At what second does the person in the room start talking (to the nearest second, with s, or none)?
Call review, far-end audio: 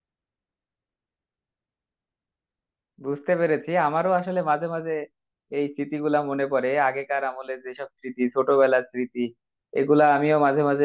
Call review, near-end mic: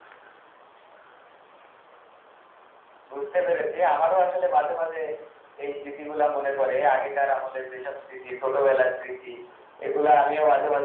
none